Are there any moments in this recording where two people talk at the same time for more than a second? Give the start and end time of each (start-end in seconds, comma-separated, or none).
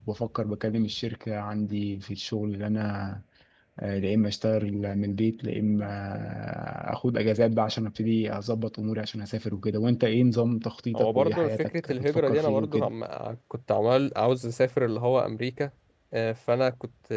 10.9-12.9